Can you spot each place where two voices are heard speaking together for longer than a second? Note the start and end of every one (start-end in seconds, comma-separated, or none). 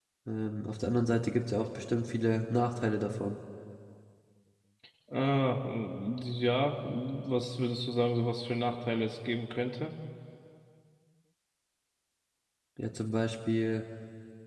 none